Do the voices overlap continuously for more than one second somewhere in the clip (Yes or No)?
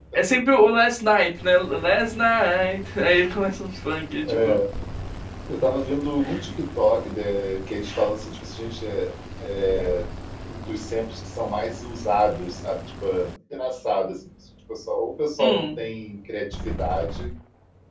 No